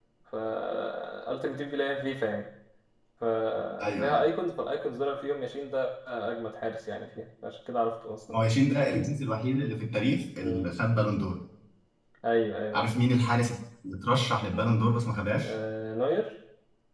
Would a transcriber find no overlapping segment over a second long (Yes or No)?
Yes